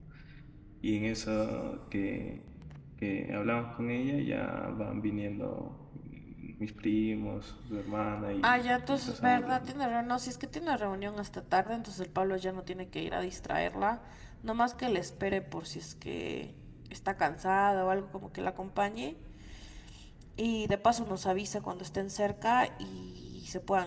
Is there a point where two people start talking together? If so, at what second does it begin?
8.4 s

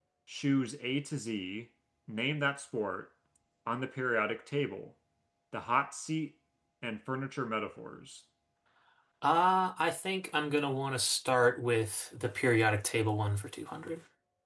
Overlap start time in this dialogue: none

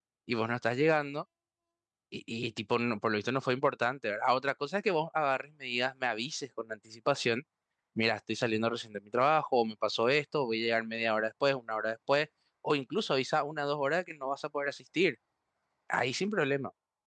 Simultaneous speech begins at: none

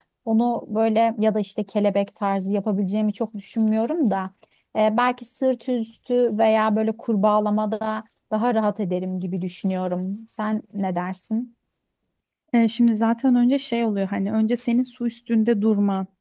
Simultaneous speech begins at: none

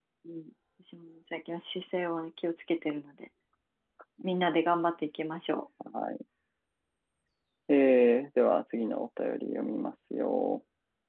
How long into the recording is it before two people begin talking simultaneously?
none

